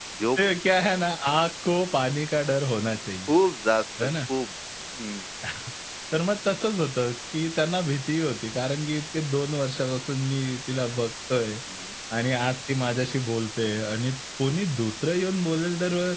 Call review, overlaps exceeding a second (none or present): none